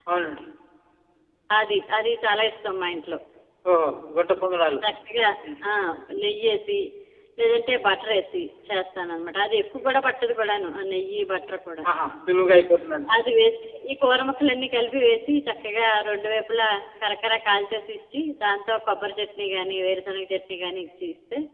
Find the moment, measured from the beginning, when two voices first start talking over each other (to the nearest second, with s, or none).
none